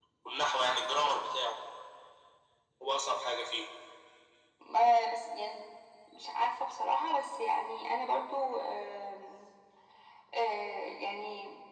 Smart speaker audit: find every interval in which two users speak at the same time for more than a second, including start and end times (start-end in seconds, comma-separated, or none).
none